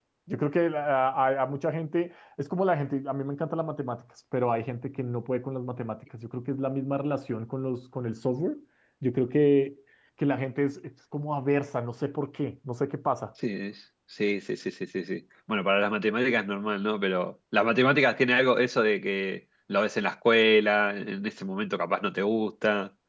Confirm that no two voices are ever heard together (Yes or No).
Yes